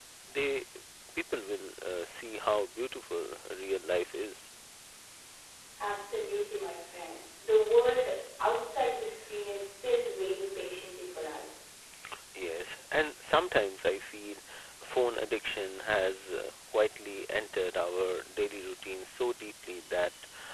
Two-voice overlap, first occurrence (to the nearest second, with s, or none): none